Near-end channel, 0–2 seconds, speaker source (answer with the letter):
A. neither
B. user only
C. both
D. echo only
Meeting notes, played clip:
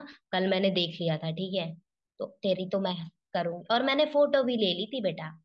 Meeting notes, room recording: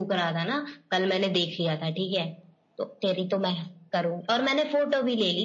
D